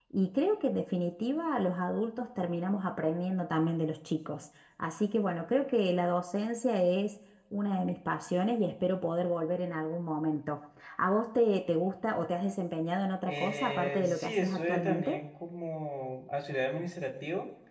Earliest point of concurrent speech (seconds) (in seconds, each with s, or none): 13.3 s